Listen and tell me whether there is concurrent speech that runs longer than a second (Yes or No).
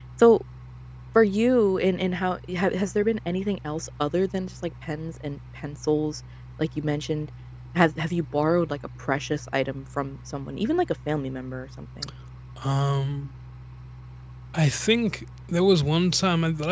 No